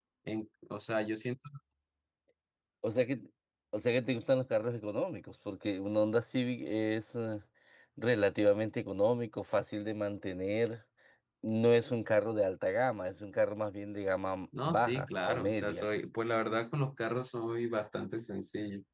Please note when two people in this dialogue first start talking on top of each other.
14.5 s

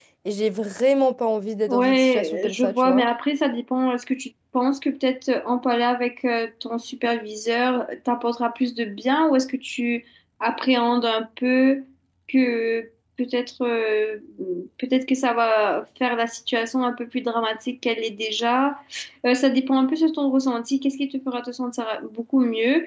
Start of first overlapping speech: 1.7 s

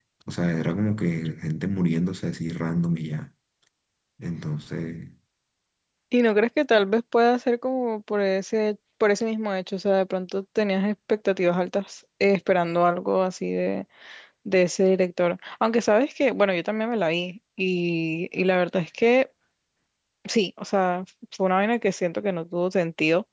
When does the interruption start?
none

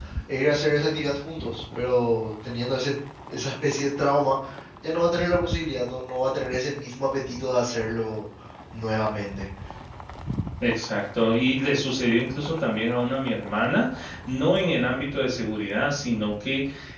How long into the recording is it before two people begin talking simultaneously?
none

